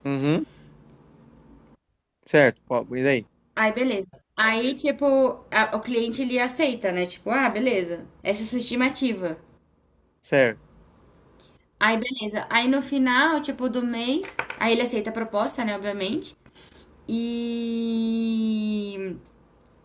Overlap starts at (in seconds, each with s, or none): none